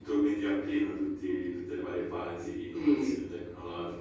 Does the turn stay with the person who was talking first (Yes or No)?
Yes